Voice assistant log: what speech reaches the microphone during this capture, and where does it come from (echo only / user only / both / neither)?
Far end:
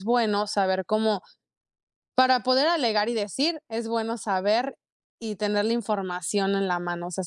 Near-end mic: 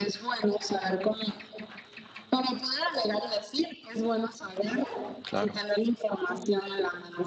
both